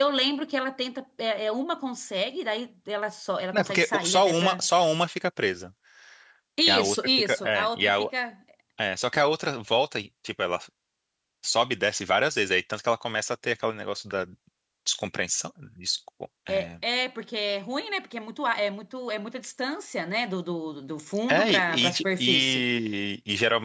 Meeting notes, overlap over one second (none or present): present